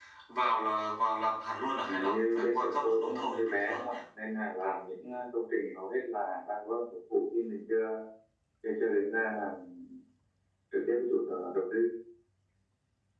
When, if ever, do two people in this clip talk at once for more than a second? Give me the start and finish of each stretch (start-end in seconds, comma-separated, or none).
1.8-3.9